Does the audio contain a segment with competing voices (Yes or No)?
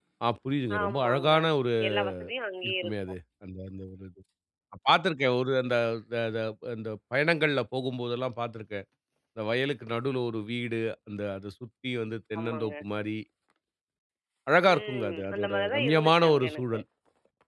Yes